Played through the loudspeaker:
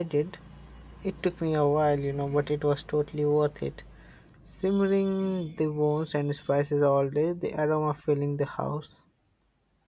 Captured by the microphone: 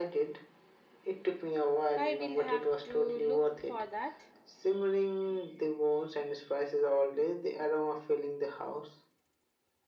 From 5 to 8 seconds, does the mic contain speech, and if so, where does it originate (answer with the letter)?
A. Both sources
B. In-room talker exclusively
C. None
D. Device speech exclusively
D